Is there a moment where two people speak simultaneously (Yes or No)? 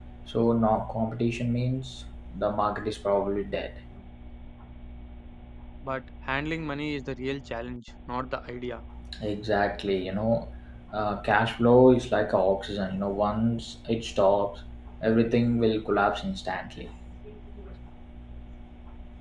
No